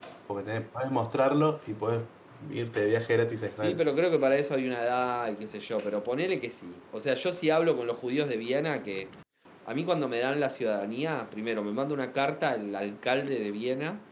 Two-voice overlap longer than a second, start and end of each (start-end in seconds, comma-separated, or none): none